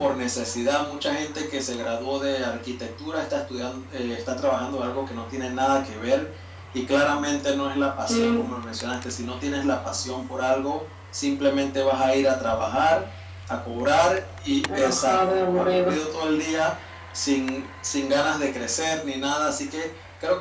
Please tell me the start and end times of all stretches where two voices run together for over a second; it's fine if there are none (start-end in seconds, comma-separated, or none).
14.7-15.9